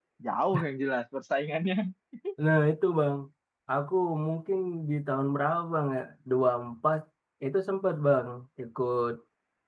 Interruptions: none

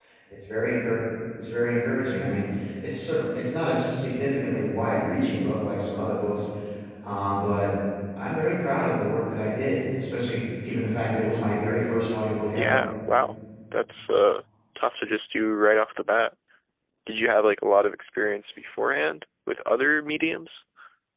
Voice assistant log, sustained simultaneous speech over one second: none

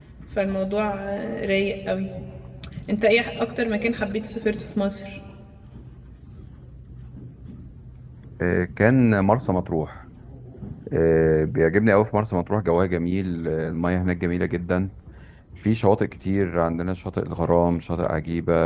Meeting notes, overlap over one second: none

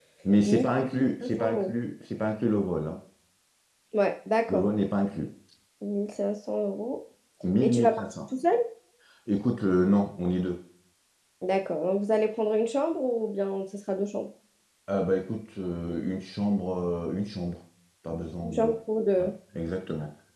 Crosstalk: present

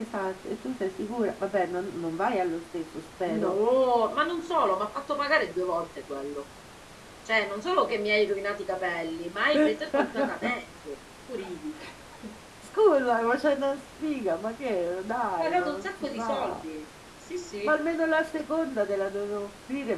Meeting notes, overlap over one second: present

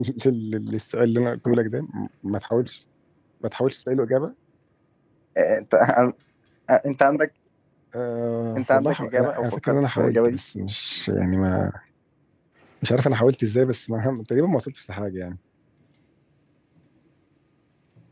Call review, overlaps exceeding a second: present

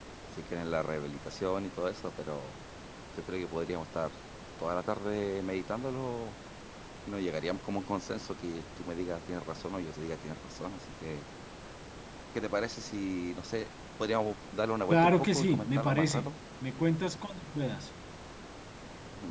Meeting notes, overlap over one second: present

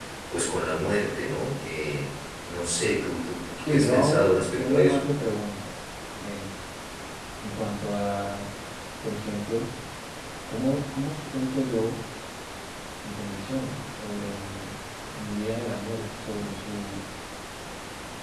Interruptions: present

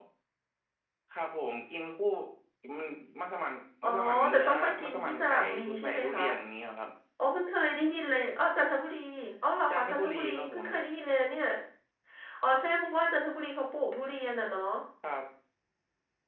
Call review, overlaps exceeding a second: present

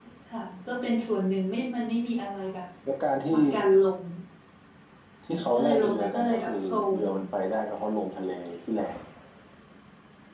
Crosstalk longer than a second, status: present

